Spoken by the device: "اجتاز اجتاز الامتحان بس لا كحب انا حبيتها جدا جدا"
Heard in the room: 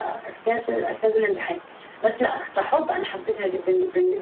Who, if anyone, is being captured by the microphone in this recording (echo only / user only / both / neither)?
echo only